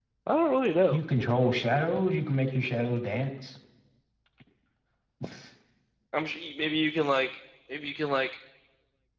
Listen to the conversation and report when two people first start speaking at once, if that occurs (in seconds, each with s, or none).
none